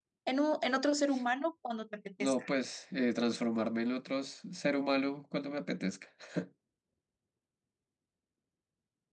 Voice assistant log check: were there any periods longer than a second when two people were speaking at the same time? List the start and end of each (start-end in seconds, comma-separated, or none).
none